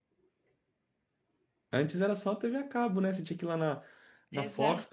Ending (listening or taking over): listening